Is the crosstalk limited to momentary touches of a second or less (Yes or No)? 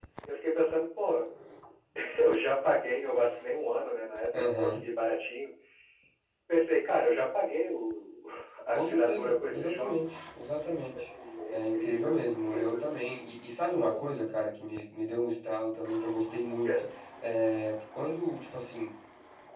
No